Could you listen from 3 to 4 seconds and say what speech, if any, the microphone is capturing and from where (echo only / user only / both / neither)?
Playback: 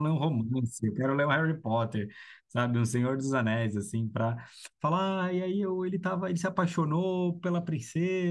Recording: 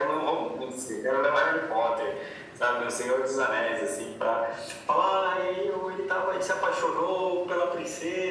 echo only